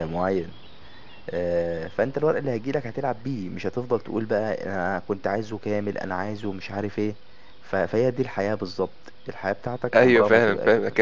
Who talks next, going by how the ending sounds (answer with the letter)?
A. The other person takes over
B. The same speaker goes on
A